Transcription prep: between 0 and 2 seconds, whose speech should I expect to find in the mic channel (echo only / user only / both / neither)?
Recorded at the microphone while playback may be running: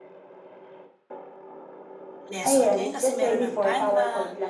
neither